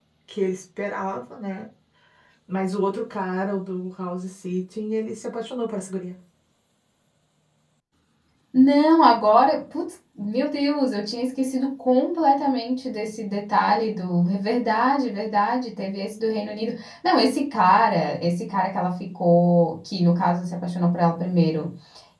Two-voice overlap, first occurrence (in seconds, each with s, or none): none